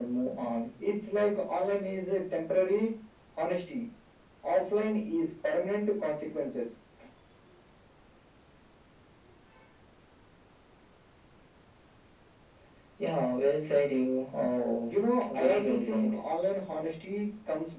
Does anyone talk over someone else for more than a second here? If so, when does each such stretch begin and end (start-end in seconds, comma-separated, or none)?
14.9-16.1